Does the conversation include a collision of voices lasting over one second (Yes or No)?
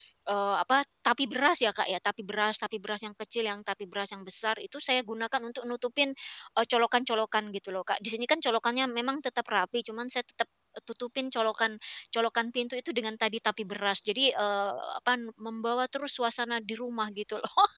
No